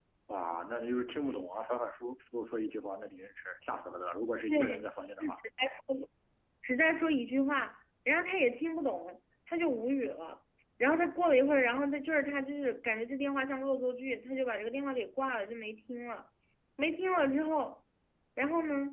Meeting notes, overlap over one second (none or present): none